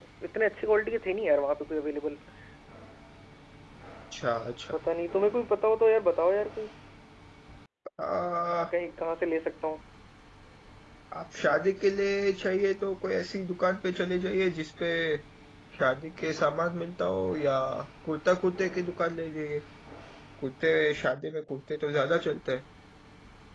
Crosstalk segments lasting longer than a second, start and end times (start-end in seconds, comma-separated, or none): none